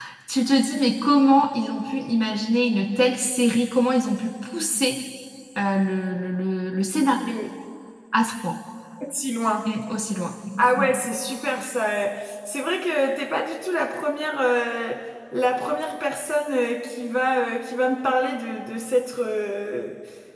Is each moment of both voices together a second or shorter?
Yes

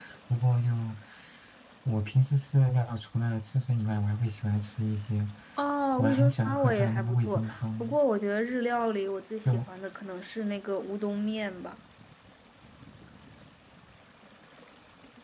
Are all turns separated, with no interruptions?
No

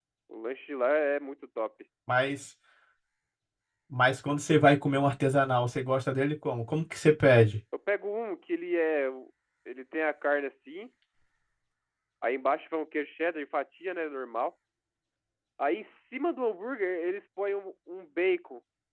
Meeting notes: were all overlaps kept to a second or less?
Yes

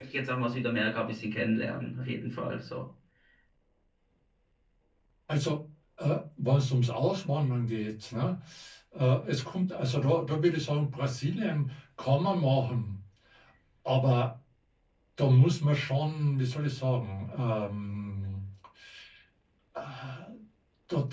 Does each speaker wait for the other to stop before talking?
Yes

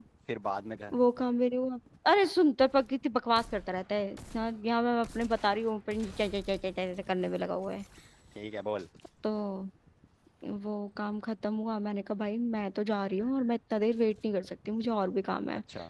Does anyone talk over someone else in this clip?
No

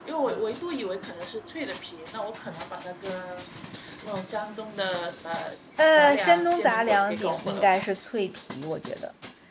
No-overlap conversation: No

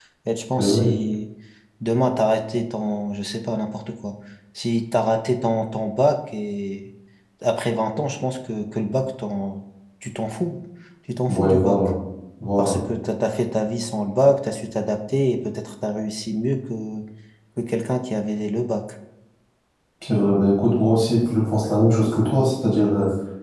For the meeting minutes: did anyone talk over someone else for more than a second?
No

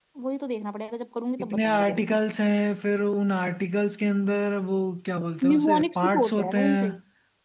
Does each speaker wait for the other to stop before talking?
No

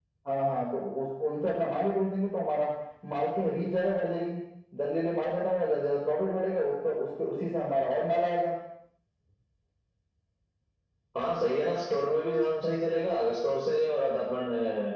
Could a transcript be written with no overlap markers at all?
Yes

